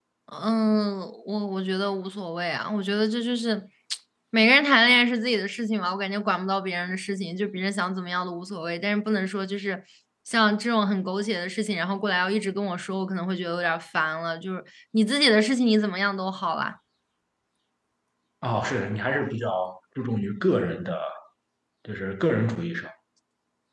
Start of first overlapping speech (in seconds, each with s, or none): none